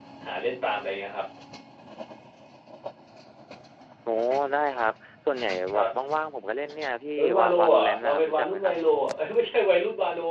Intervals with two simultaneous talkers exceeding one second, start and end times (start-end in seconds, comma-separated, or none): 7.2-8.7